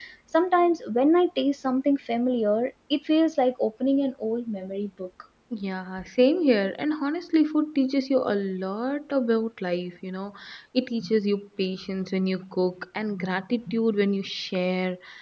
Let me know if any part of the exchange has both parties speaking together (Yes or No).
No